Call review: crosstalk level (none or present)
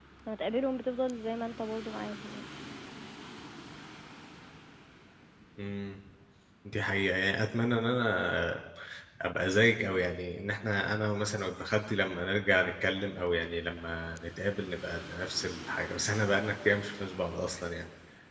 none